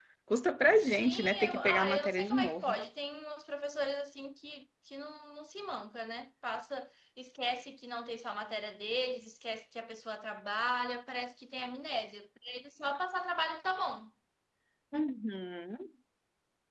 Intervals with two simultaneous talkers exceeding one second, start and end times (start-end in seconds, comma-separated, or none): 0.8-2.8